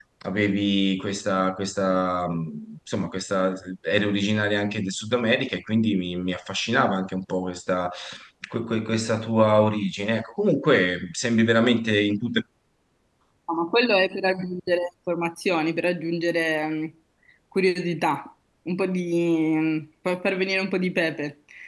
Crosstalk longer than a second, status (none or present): none